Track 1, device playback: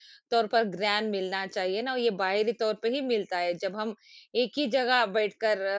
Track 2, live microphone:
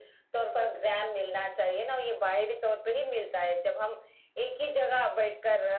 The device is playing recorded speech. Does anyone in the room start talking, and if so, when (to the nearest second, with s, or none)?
none